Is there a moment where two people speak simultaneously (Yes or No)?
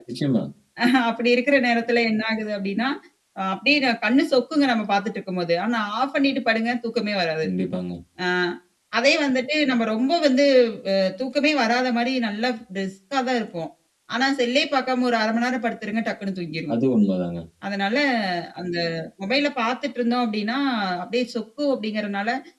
No